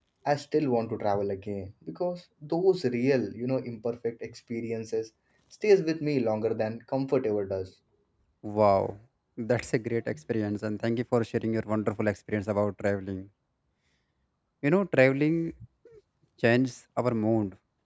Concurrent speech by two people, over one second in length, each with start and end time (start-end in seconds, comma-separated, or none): none